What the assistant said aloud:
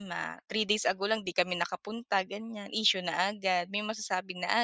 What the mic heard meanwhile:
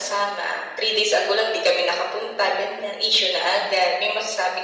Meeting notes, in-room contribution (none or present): none